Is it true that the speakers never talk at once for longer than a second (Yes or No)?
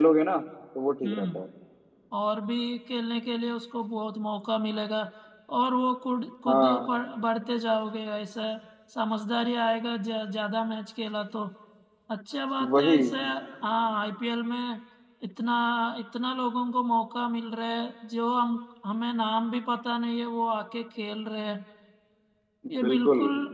Yes